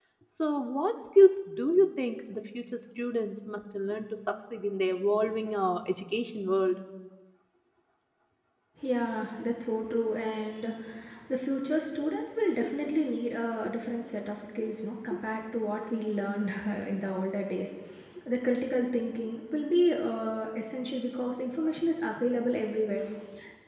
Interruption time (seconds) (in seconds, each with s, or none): none